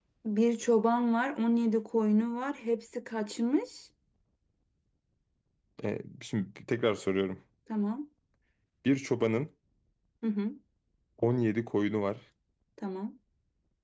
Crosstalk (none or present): none